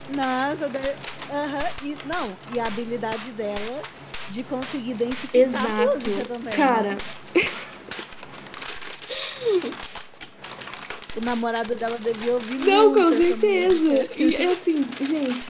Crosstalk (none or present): present